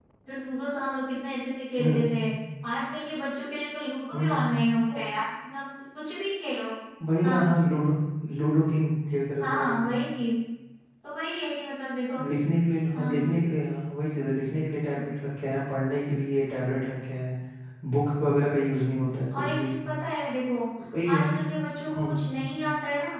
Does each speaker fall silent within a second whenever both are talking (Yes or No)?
Yes